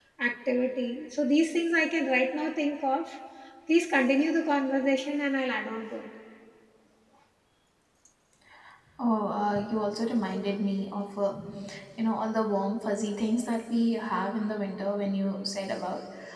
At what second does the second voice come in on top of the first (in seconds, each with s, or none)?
none